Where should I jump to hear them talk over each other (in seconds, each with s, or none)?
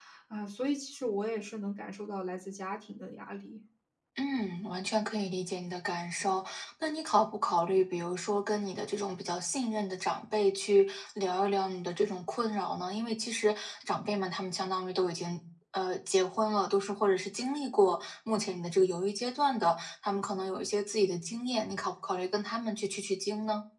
none